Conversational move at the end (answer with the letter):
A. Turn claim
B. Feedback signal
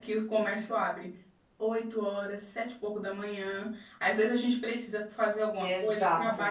B